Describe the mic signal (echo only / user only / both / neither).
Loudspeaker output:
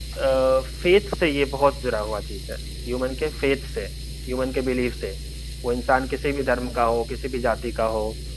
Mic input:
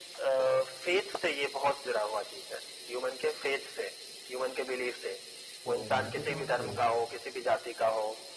both